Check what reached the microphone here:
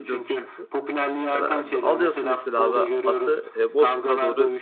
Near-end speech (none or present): present